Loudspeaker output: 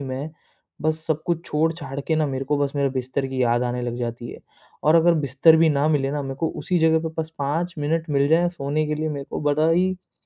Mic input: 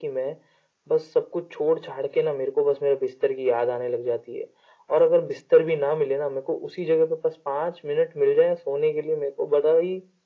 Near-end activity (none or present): none